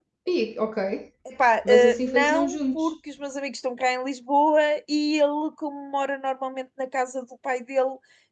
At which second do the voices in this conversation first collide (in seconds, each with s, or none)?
1.6 s